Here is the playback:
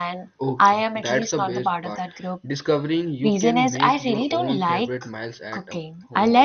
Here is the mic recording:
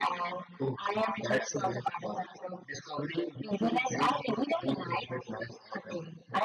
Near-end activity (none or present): none